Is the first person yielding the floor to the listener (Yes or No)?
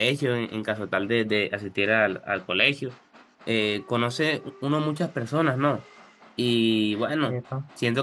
No